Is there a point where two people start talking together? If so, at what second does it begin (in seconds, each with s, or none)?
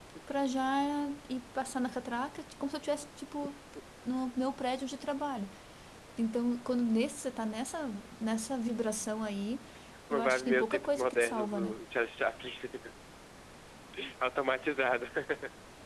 10.1 s